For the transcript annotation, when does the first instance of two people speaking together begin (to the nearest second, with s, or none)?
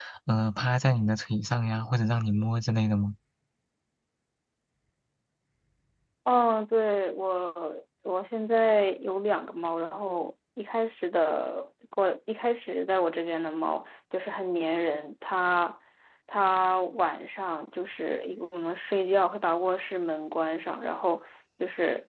none